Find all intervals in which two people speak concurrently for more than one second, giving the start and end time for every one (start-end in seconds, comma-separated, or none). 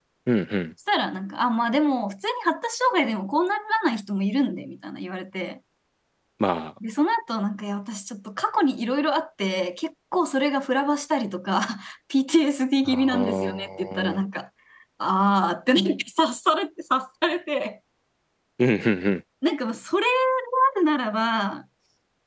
12.8-14.2